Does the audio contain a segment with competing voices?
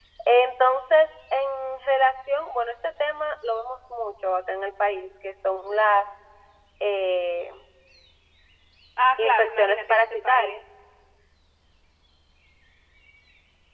Yes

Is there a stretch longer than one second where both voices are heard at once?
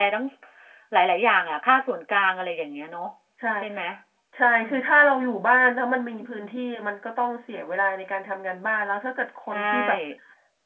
No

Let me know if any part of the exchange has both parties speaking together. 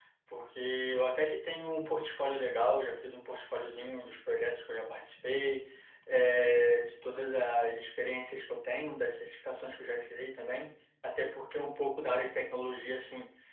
No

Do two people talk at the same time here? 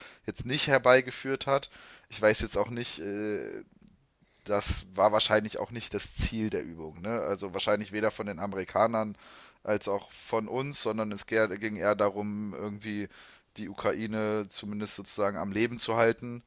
No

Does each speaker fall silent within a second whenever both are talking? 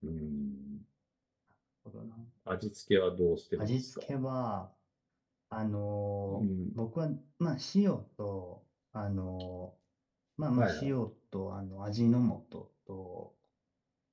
Yes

